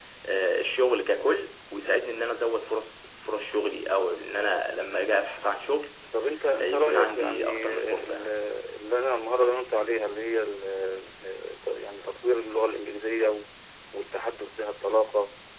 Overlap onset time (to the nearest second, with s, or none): 7 s